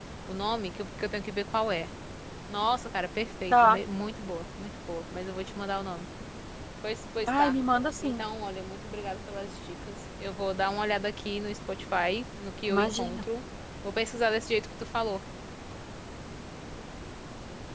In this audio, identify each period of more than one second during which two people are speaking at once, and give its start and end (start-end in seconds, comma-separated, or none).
none